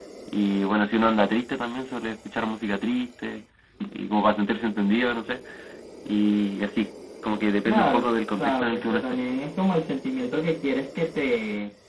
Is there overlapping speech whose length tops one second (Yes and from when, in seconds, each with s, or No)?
Yes, from 7.7 s